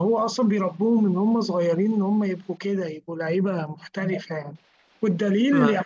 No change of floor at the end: Yes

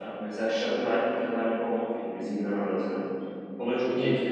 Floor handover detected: Yes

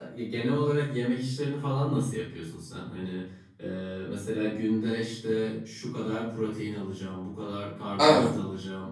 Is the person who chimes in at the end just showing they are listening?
Yes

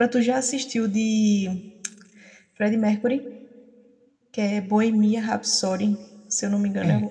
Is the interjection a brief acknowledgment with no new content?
No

